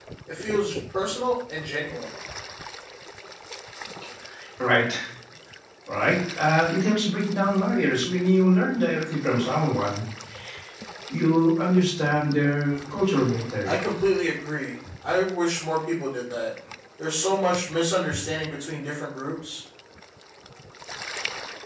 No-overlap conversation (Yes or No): Yes